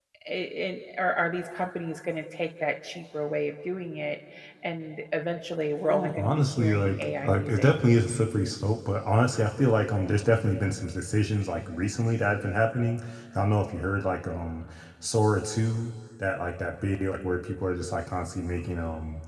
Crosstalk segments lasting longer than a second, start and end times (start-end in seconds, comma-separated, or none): 5.9-7.7